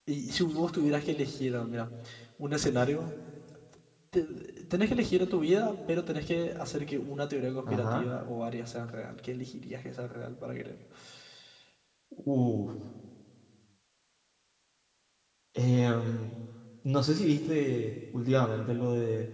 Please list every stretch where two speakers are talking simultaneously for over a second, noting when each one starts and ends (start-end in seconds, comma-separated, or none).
none